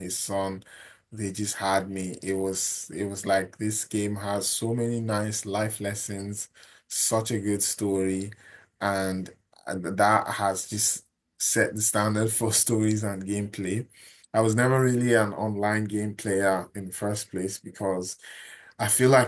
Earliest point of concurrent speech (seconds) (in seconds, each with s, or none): none